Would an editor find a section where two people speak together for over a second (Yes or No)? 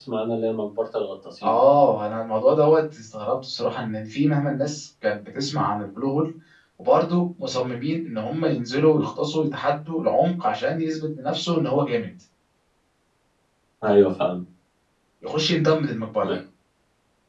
No